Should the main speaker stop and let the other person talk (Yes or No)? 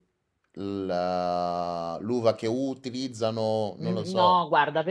Yes